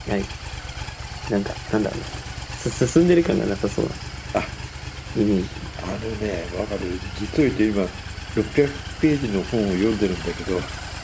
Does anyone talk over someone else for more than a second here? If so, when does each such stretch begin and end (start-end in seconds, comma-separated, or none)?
none